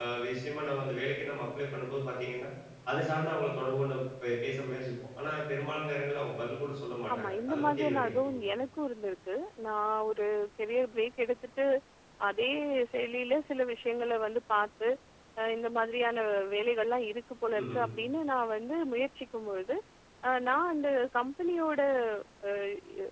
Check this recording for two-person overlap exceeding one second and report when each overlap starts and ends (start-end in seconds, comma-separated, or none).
7.1-8.4